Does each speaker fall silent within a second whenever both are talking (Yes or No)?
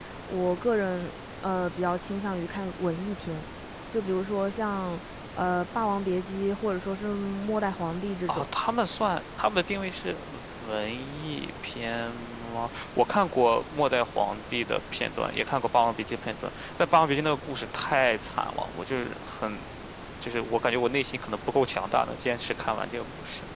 Yes